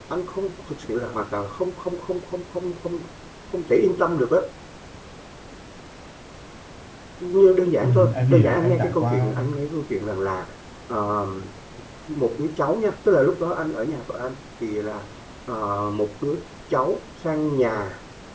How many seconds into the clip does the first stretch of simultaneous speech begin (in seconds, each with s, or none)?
7.8 s